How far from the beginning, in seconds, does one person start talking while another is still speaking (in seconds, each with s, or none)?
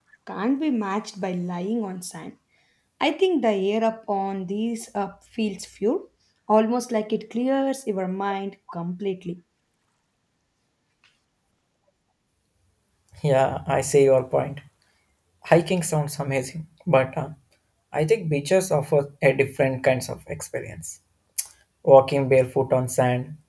none